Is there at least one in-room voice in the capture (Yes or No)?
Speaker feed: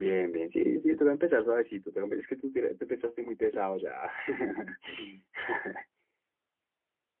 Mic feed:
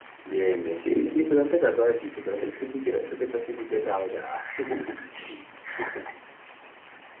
No